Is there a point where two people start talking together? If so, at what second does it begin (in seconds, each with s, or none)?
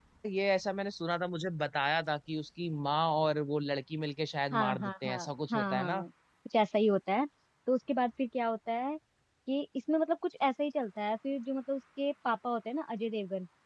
4.5 s